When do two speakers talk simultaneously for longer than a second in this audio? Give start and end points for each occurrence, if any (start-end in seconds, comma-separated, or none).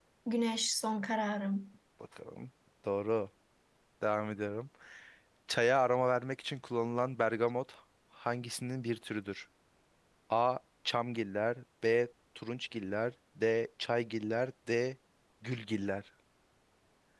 none